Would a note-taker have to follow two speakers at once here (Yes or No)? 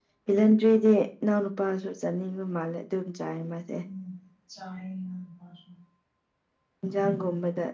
No